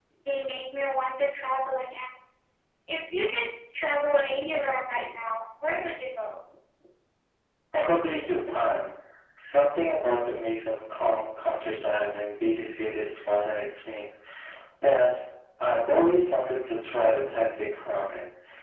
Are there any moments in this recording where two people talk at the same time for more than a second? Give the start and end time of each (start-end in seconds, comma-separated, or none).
none